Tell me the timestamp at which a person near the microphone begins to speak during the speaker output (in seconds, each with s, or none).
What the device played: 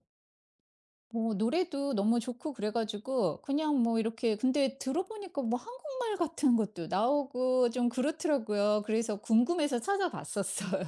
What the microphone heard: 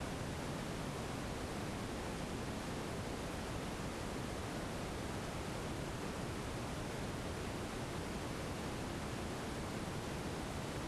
none